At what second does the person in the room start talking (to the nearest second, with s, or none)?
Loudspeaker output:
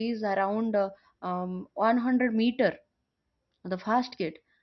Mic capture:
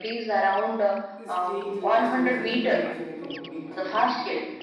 1 s